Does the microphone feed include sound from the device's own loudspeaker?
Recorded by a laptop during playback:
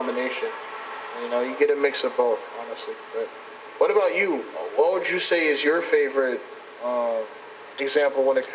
Yes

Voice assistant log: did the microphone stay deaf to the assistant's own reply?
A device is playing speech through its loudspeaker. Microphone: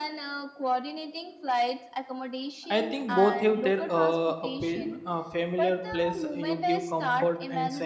No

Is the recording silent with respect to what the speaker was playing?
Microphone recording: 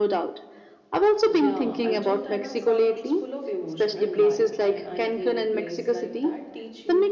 No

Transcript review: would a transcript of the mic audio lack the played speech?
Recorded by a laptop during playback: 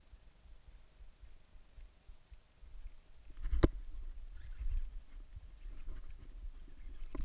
Yes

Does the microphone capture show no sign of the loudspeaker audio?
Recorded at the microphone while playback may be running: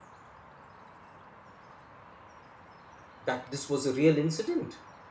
Yes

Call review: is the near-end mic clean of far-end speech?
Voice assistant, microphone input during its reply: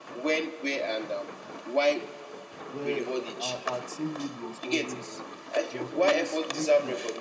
No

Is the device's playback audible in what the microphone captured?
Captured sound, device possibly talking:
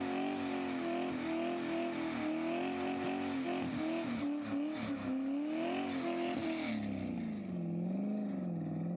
No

